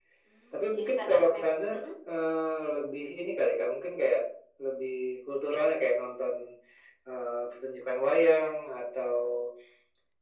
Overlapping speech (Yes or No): Yes